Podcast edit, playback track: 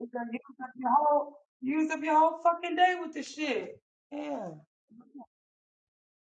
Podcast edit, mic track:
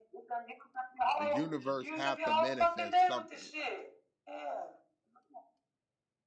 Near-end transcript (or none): The universe have to manifest something